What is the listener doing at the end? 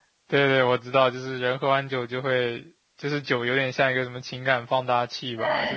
taking over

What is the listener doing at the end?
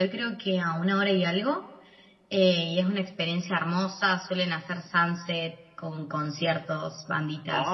taking over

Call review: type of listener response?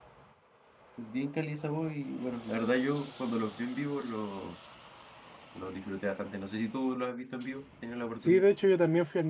taking over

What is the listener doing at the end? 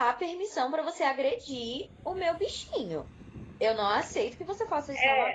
taking over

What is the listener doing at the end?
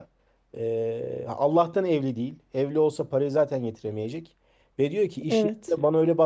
listening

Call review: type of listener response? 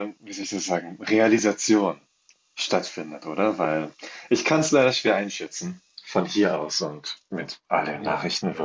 taking over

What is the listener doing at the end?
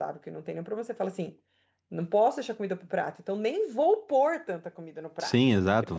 taking over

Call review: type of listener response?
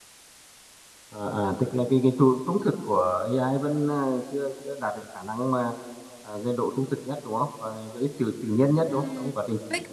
taking over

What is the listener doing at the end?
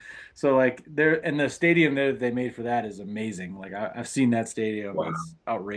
listening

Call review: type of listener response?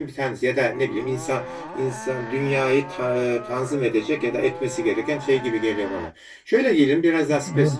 listening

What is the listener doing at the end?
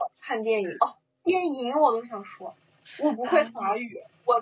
listening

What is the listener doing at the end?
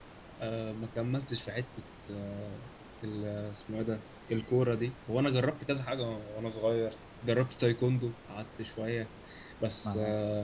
listening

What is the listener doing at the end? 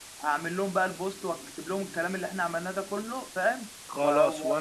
taking over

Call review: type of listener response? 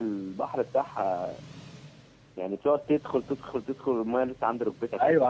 taking over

